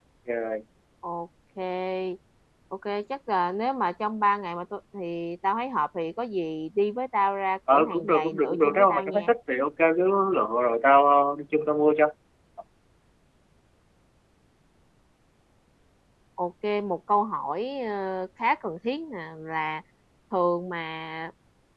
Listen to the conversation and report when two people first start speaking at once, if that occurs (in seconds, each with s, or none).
7.7 s